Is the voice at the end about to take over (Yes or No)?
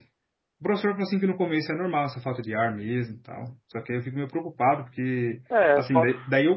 No